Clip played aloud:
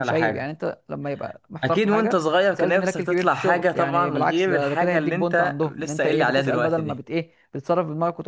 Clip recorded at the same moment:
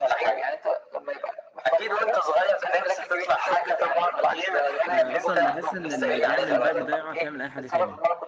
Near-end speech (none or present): present